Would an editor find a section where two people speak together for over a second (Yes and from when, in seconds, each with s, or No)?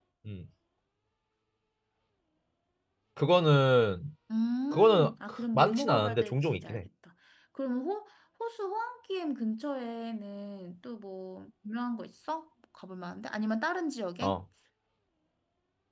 Yes, from 4.7 s